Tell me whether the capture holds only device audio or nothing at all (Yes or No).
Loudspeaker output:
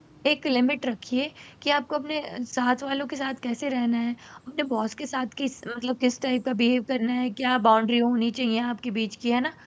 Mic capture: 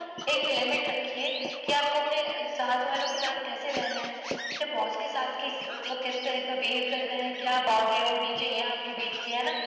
Yes